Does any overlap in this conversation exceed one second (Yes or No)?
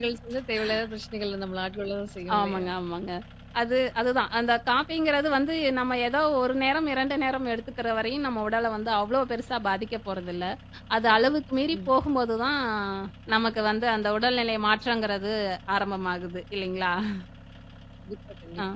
No